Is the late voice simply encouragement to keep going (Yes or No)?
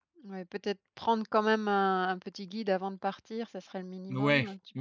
No